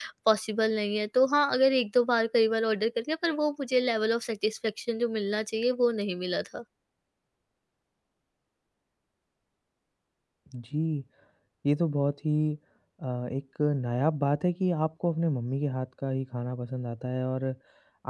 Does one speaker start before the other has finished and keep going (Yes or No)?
No